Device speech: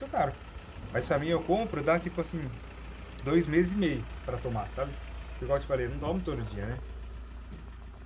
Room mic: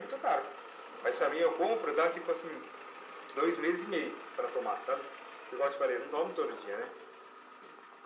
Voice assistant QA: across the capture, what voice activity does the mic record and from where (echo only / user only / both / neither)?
echo only